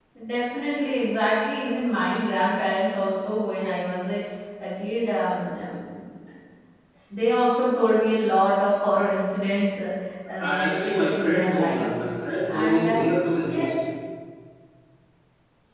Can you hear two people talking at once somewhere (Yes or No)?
Yes